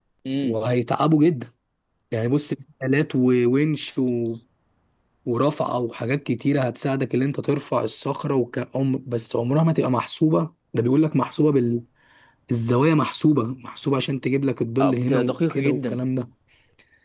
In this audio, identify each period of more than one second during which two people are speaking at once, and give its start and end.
14.8-16.0

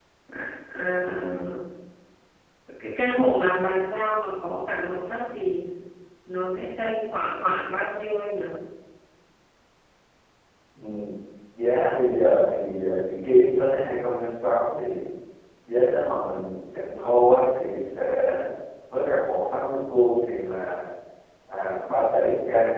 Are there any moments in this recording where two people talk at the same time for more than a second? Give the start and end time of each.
none

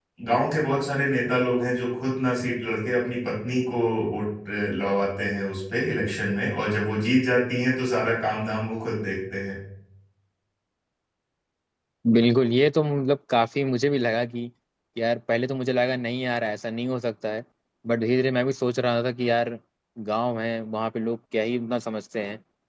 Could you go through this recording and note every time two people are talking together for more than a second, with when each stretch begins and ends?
none

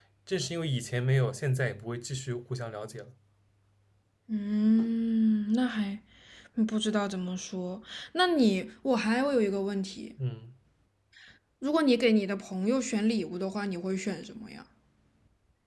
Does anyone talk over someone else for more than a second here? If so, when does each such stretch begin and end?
none

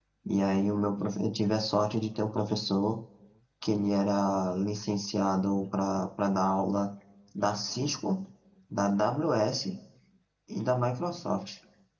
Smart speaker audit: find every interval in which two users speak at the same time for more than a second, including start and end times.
none

